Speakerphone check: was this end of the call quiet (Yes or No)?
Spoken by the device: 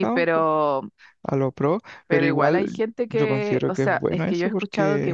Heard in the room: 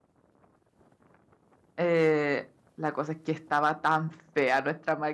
No